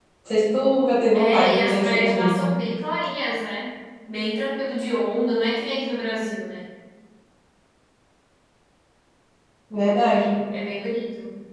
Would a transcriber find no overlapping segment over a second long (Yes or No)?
No